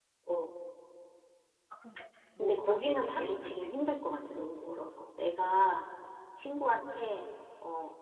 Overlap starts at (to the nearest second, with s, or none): 2 s